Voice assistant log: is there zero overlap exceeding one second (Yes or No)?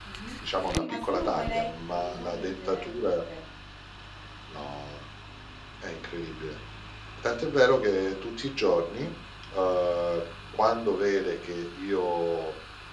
No